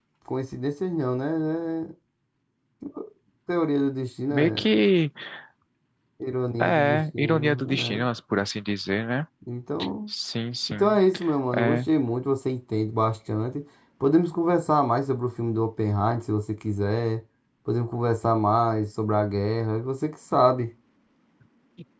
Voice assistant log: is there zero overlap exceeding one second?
No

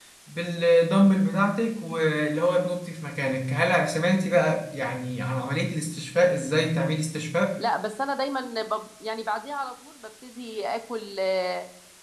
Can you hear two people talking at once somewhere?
No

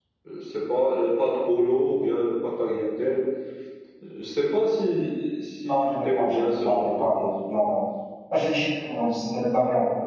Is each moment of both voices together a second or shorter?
No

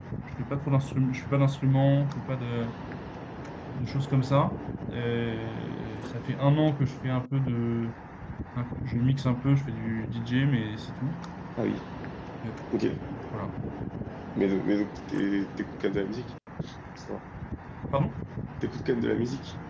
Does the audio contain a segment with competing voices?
No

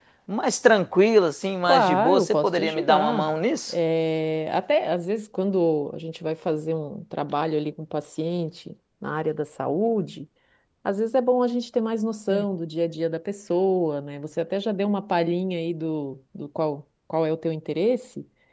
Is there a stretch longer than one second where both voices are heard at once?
Yes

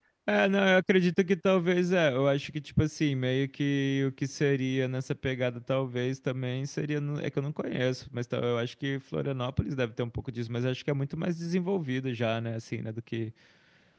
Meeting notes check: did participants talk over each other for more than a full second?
No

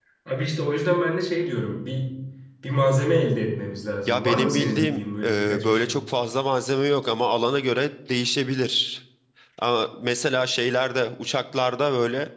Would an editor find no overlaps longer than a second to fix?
No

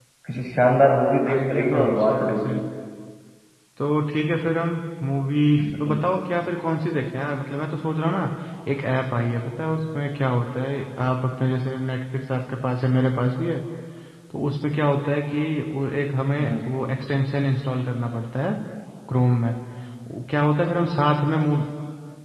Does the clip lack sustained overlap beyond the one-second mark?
No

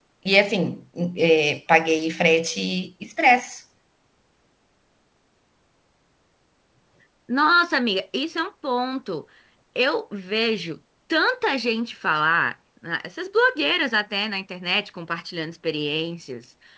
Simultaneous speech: No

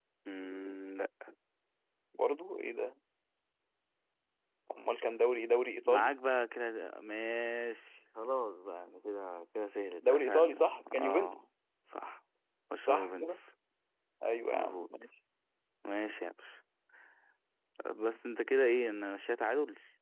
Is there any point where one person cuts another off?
Yes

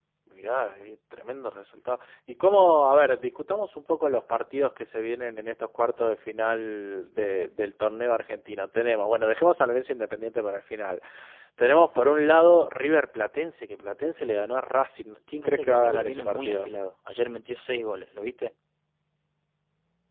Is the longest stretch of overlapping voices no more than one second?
No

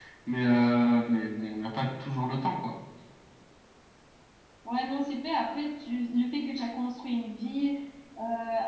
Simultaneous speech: No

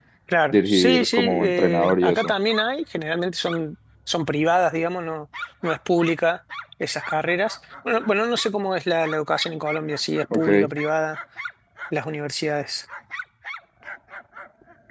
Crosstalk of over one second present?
Yes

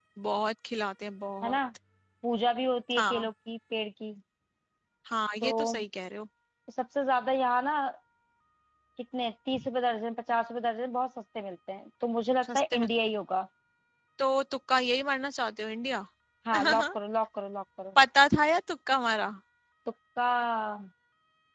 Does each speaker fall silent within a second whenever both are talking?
Yes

